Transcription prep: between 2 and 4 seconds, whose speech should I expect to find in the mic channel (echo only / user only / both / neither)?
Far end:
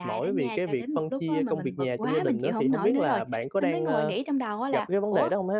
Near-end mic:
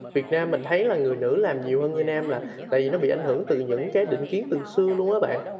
both